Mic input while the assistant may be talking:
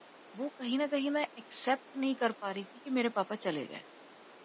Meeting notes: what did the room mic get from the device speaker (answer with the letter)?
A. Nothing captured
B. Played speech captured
A